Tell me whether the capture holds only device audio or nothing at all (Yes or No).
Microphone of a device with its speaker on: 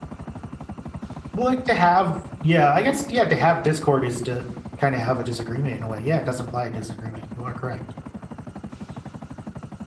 No